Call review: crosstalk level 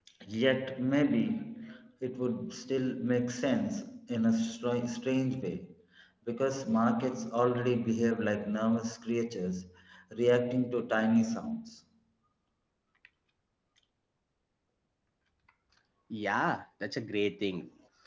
none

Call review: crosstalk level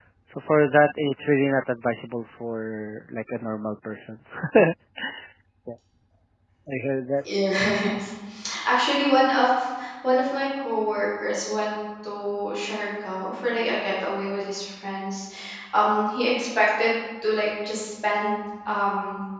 none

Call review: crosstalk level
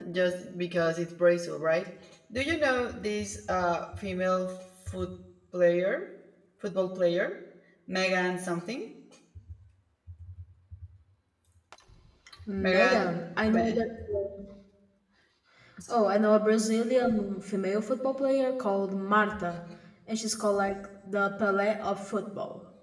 present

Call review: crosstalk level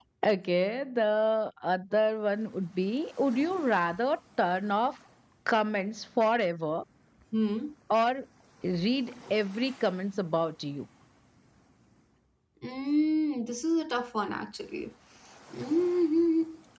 none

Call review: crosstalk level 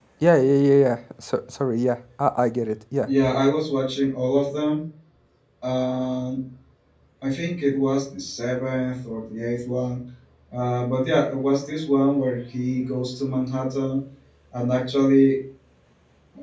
none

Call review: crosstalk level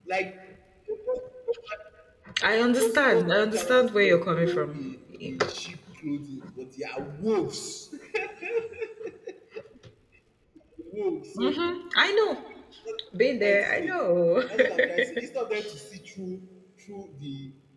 present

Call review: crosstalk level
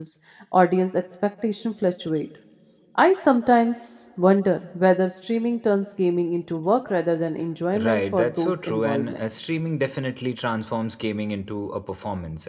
present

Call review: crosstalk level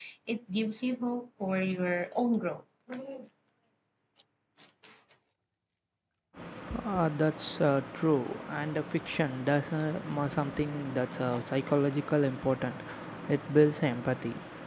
none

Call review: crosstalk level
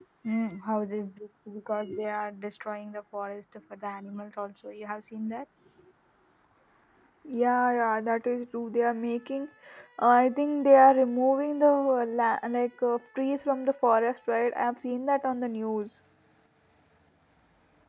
none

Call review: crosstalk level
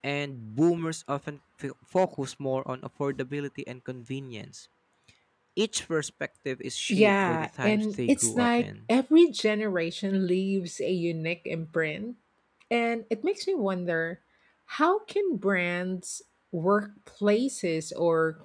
present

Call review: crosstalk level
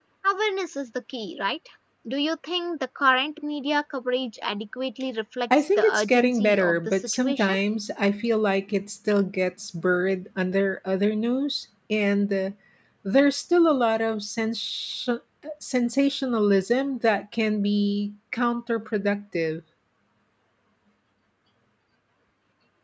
present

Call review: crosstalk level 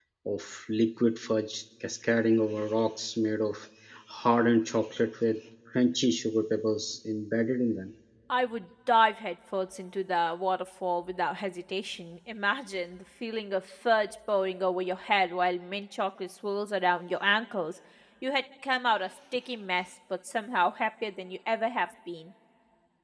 none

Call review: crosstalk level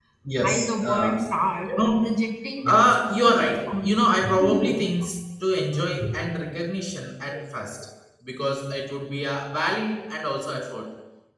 present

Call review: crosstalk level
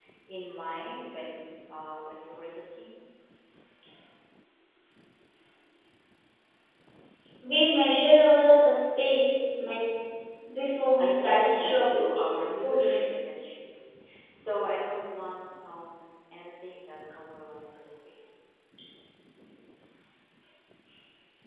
present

